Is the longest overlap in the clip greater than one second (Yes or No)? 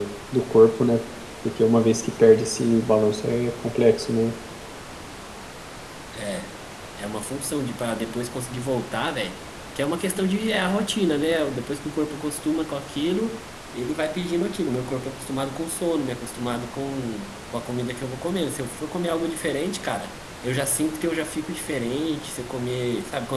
No